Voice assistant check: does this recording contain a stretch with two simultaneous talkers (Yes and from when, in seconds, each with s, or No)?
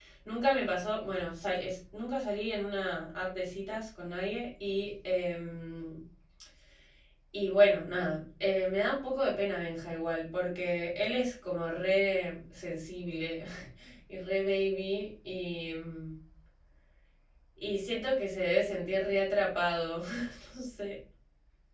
No